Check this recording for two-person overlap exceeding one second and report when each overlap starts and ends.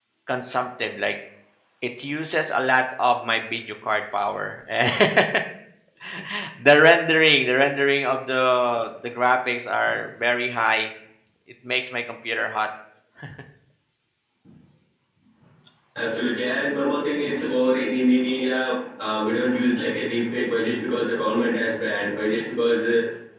none

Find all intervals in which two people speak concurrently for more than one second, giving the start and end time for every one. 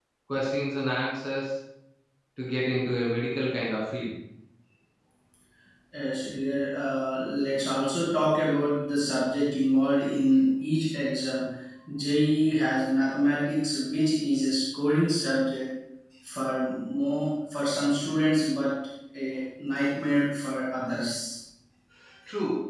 none

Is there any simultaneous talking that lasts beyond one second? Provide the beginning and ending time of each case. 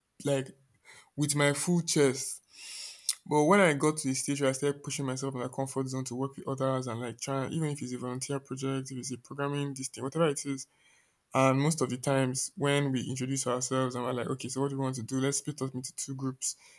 none

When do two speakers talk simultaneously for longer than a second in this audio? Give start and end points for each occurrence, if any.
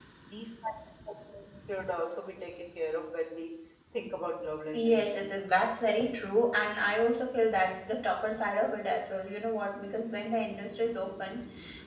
none

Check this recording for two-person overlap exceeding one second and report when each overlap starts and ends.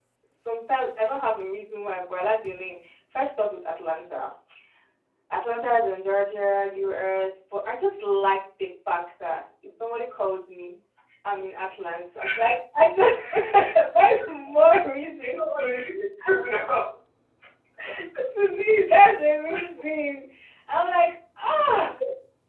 none

